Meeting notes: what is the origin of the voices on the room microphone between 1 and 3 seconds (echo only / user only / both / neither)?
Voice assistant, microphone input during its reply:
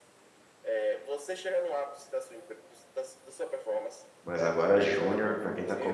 echo only